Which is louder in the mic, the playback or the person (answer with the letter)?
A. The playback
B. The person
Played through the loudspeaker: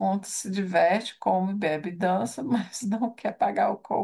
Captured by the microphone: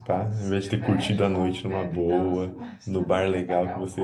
B